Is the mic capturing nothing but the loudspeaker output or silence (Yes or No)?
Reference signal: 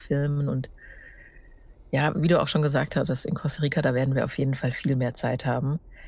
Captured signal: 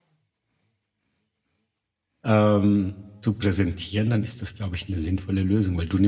No